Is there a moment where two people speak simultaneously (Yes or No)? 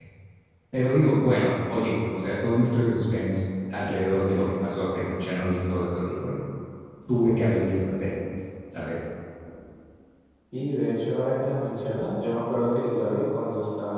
No